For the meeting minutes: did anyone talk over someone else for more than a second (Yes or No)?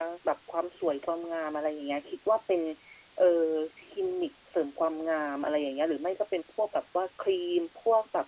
No